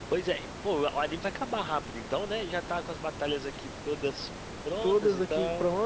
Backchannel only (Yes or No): No